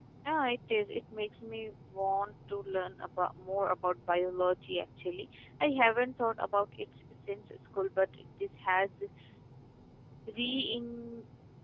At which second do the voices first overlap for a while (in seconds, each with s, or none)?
none